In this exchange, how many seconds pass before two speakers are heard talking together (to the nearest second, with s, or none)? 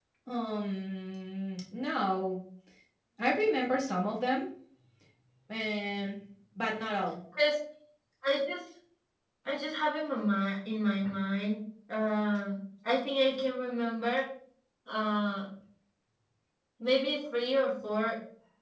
none